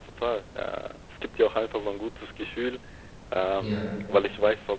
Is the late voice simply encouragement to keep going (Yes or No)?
Yes